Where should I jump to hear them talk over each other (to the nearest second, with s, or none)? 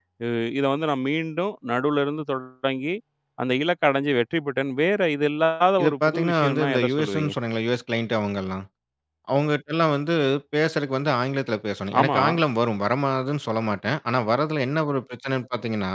6 s